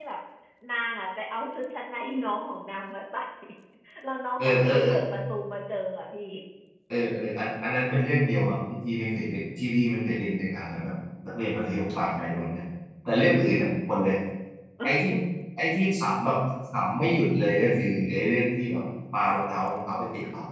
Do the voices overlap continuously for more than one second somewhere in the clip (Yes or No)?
No